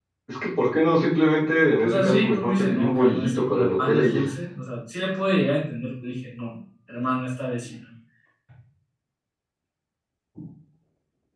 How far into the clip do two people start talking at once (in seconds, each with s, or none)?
1.8 s